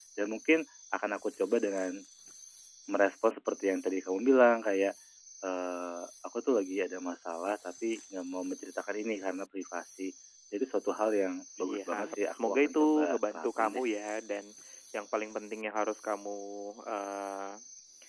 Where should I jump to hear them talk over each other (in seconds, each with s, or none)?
11.6 s